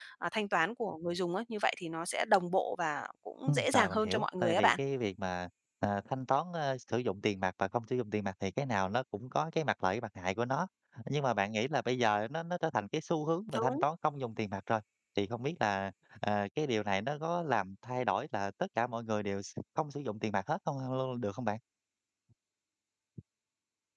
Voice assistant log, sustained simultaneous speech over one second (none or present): present